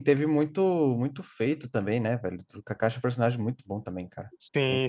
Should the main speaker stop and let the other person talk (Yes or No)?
Yes